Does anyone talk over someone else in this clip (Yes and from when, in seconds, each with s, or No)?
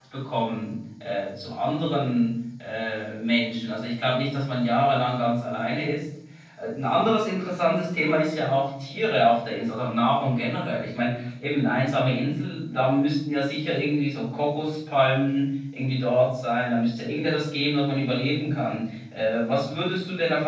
No